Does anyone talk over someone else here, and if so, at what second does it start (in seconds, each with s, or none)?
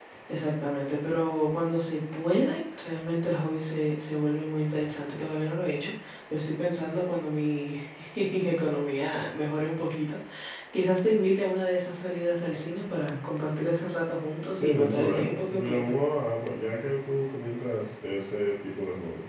14.6 s